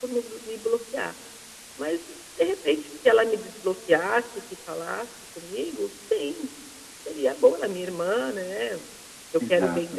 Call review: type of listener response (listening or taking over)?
listening